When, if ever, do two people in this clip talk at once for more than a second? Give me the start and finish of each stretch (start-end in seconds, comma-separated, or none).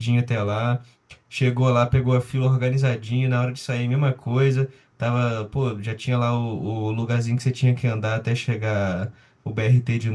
none